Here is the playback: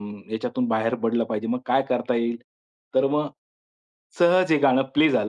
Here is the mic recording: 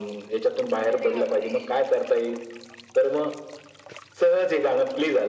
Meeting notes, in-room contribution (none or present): present